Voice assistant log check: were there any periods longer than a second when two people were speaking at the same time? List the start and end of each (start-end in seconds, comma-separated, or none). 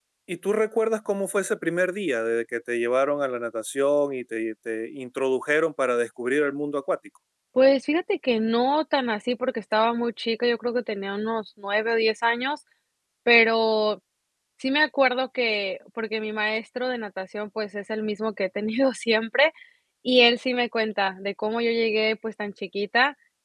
none